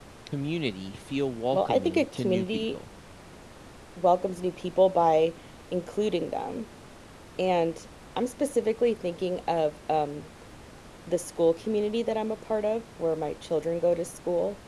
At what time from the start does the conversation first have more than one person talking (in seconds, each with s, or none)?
1.5 s